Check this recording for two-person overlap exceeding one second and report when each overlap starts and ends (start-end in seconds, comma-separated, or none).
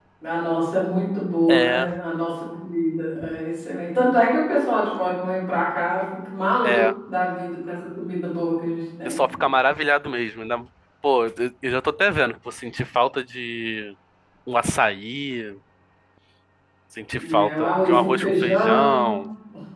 17.3-19.1